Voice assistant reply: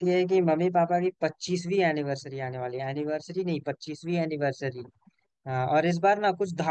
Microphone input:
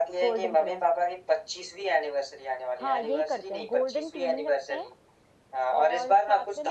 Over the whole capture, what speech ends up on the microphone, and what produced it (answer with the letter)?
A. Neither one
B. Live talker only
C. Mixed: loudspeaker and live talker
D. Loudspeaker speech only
C